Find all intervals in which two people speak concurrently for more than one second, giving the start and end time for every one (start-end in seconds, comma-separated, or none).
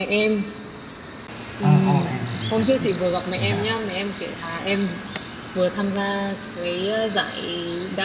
none